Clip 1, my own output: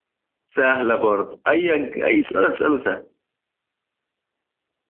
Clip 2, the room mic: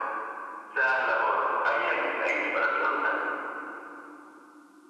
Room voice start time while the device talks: none

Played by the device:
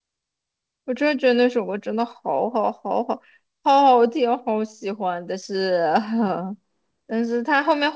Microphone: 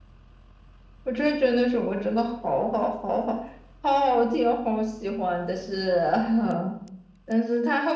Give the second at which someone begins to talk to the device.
none

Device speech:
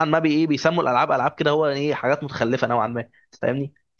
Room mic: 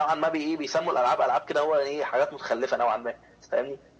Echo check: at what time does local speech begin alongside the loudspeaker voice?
none

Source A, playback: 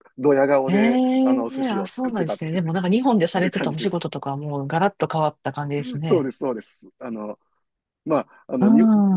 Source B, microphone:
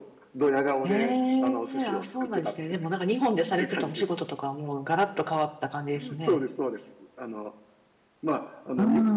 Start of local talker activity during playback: none

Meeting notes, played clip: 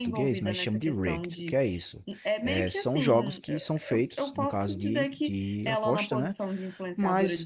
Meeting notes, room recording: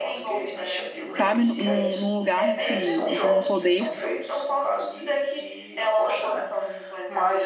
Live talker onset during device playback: 1.1 s

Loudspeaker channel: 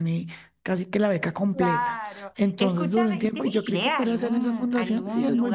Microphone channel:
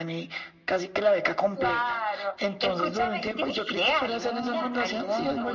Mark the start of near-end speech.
4.4 s

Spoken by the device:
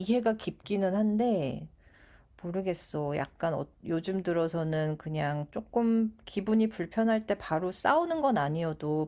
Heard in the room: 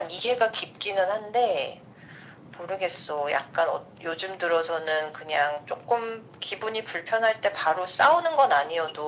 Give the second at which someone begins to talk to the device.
none

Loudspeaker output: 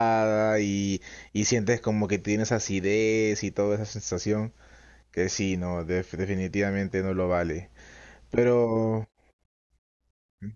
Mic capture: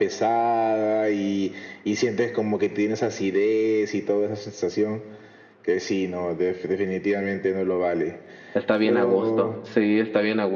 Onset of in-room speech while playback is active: 8.5 s

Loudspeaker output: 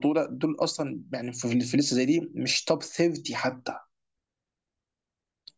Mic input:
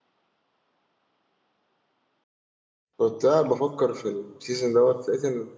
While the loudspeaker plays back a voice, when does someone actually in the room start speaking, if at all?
3.0 s

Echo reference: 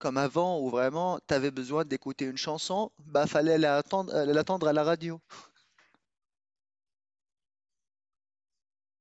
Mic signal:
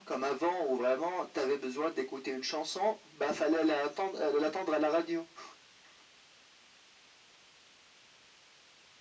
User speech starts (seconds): none

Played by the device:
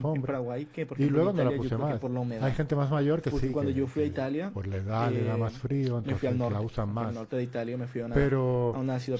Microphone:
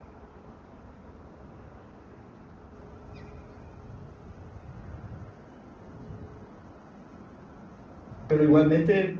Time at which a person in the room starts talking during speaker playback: 8.3 s

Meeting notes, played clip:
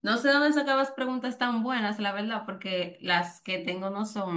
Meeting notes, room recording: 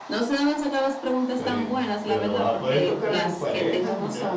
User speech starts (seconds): 1.3 s

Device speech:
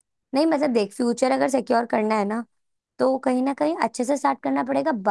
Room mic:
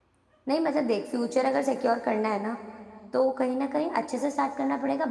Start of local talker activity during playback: none

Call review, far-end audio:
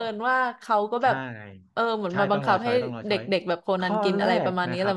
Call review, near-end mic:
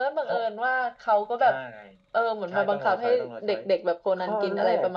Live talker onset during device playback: none

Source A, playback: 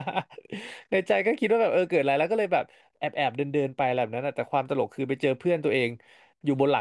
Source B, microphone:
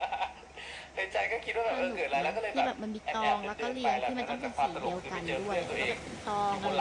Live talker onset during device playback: 1.7 s

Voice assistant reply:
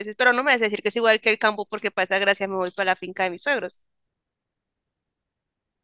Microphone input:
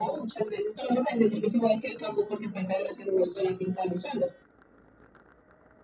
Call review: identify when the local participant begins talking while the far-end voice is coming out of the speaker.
none

